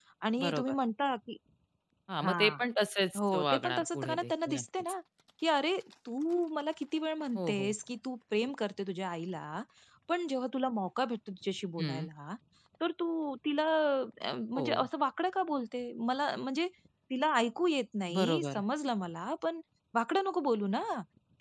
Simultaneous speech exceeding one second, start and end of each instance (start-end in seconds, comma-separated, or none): 3.2-4.9